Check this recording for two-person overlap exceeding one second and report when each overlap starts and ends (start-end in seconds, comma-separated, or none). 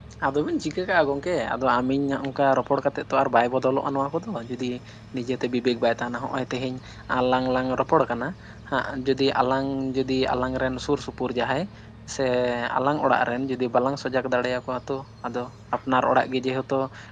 none